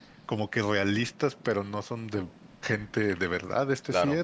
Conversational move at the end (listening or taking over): taking over